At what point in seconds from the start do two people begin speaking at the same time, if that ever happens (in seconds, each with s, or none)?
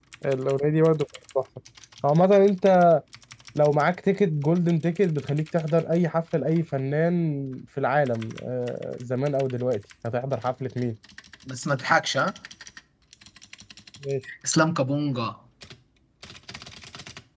none